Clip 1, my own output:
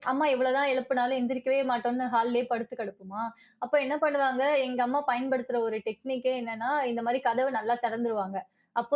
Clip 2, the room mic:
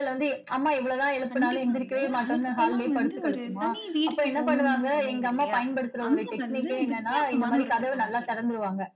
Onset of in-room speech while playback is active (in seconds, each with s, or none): 1.3 s